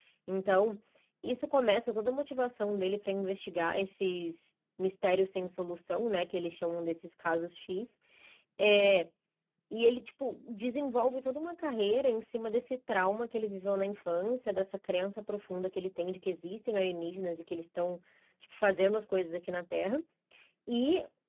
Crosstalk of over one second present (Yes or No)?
No